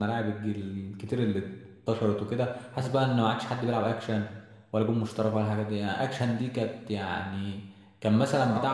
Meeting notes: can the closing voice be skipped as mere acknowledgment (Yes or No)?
Yes